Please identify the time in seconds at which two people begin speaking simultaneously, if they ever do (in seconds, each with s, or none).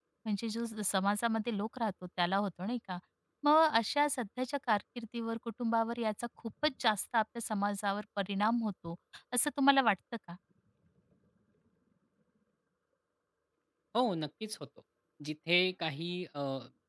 none